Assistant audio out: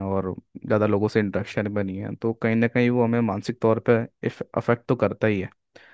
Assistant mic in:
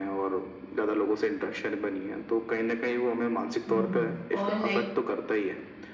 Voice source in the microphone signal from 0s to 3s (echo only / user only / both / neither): echo only